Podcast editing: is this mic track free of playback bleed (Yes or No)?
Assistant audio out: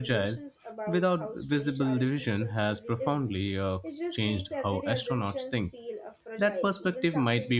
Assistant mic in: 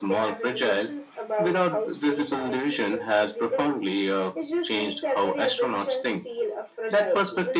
No